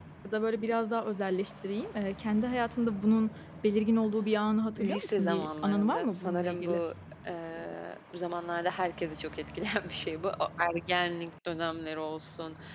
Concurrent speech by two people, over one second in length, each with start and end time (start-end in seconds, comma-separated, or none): 4.8-6.8